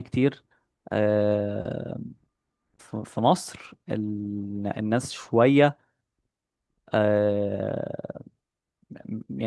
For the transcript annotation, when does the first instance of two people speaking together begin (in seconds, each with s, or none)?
none